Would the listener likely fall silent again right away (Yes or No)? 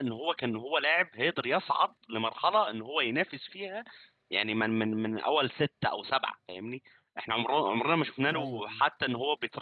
Yes